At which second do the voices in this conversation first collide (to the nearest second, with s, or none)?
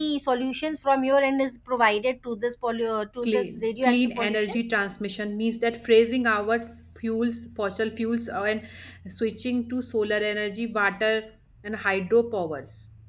3 s